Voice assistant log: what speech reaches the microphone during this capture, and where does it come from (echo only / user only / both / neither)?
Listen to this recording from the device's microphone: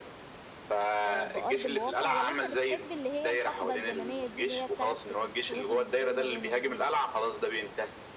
both